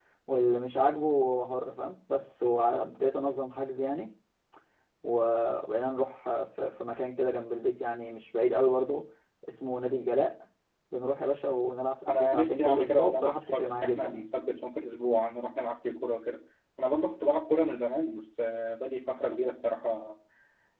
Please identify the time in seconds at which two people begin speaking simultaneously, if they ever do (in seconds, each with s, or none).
12.1 s